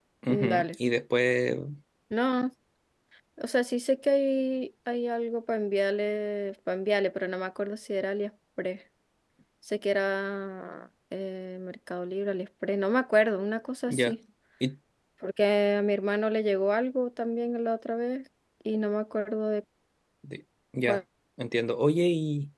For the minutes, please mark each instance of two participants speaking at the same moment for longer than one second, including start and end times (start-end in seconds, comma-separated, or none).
none